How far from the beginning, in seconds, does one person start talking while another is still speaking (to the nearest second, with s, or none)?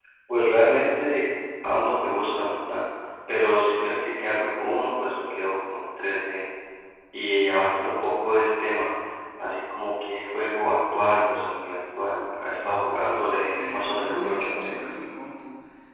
14 s